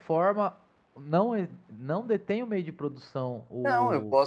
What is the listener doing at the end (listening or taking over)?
taking over